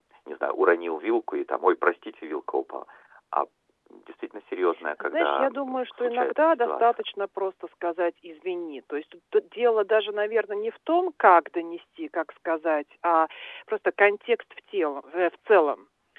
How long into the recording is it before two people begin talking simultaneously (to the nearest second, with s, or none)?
5 s